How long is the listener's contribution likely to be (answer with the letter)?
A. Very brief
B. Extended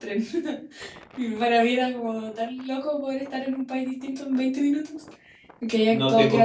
B